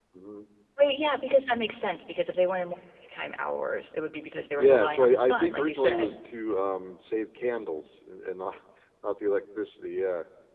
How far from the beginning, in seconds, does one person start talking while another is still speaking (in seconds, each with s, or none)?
4.5 s